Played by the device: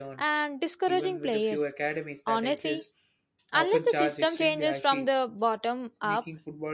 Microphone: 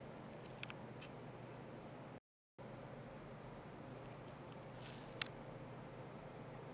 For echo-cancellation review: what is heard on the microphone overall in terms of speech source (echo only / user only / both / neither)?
neither